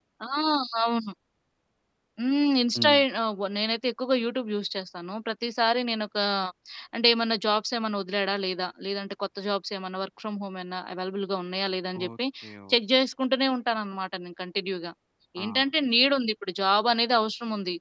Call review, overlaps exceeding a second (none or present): none